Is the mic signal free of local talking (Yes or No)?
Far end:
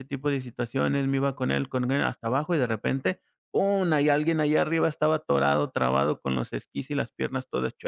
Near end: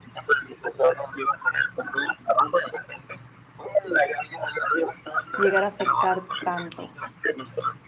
No